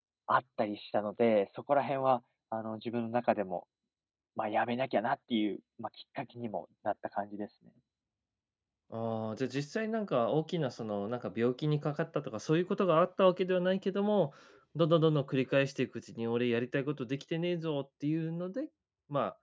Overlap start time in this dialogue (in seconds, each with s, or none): none